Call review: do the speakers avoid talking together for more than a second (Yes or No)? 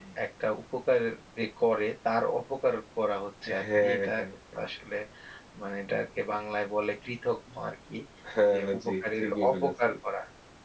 No